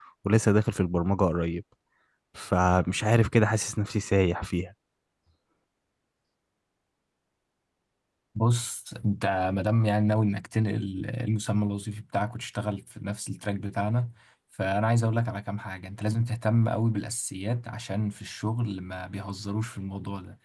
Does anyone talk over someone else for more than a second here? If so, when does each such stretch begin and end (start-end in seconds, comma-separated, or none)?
none